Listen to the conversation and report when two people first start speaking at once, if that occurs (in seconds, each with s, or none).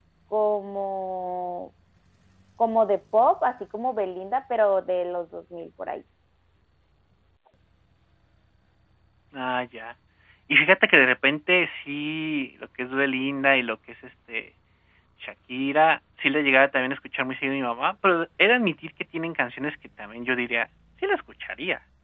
none